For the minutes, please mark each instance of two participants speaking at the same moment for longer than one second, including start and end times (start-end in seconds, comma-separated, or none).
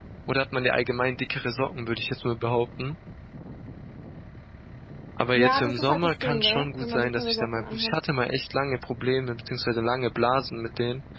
5.3-8.0